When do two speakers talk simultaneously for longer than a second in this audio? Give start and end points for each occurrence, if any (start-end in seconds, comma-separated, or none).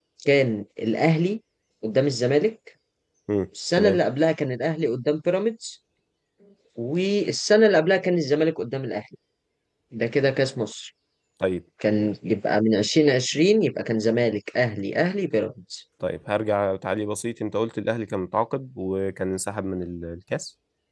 none